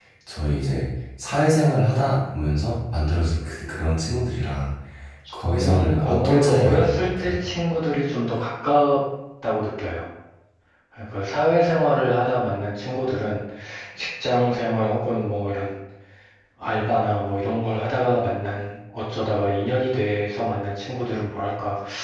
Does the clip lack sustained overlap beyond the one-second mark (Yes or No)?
No